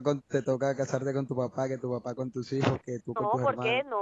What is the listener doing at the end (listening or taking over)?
taking over